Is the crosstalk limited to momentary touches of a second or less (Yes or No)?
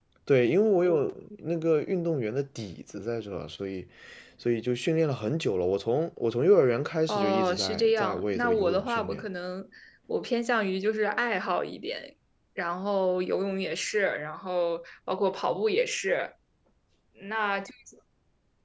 No